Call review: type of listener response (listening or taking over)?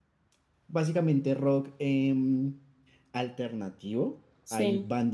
listening